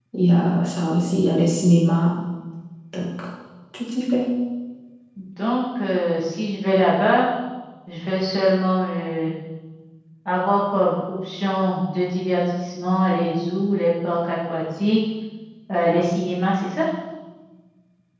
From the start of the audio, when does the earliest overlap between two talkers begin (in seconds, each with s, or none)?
none